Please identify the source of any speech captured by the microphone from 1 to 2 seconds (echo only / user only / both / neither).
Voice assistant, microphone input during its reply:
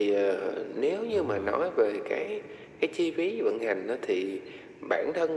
both